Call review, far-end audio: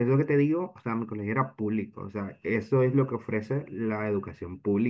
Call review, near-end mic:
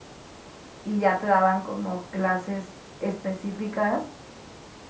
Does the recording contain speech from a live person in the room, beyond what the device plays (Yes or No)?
Yes